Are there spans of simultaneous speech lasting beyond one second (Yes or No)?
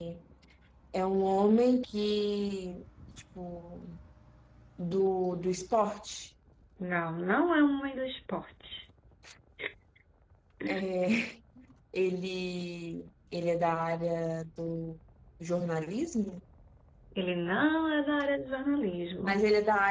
No